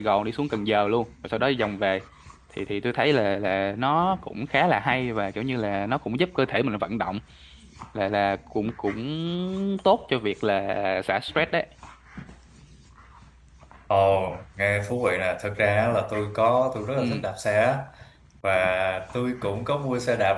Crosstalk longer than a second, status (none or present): none